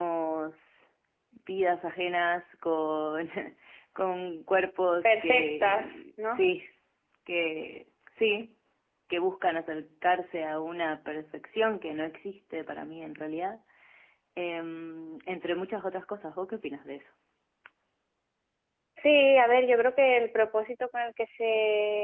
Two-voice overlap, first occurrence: 5.0 s

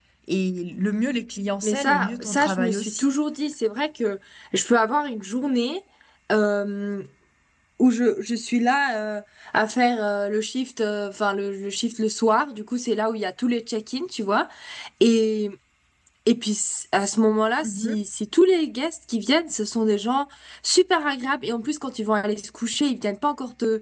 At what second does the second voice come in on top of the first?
1.6 s

